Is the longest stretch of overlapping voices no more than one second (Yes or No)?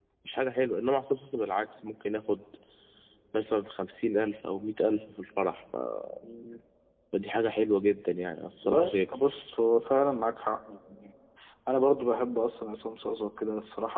Yes